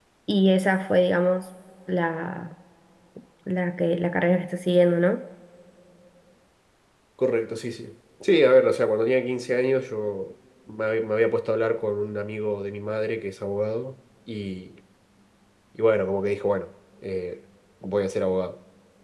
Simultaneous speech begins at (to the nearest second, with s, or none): none